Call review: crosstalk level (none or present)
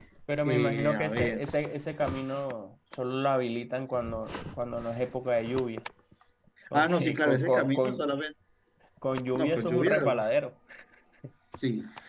present